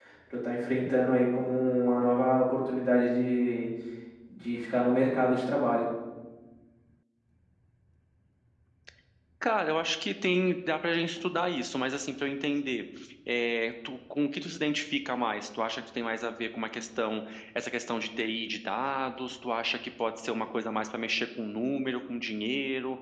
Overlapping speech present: No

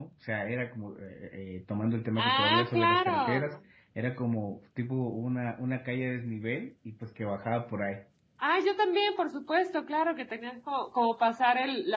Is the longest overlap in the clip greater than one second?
Yes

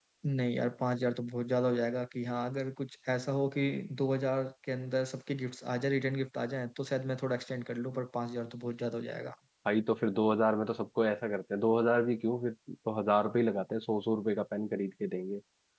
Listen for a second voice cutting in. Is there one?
No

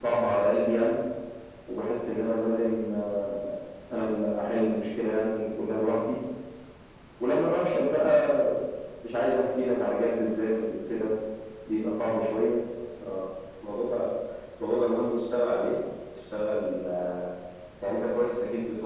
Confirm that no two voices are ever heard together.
Yes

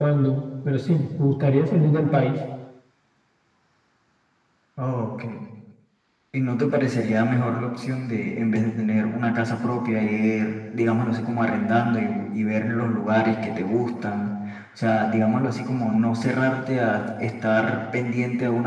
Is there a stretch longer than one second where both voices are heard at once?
No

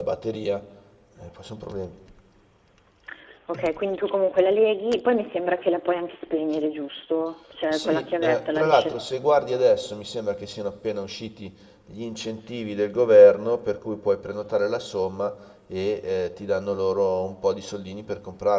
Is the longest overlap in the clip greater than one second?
Yes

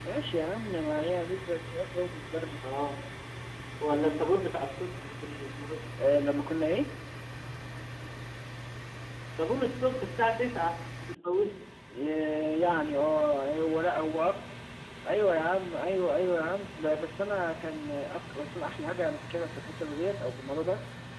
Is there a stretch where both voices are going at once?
No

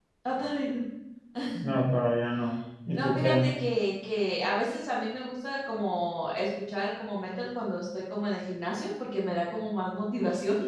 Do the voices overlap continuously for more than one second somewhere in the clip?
No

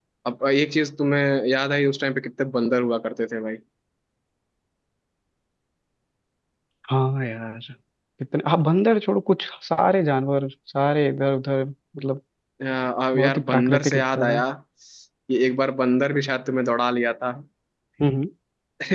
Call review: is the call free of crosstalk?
No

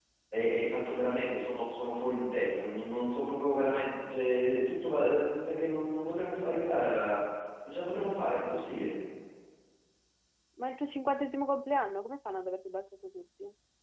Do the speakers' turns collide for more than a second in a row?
No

